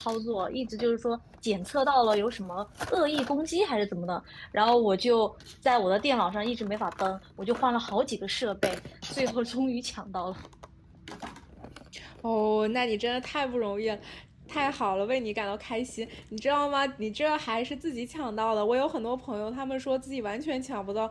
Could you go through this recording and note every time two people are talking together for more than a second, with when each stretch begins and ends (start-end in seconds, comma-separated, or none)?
none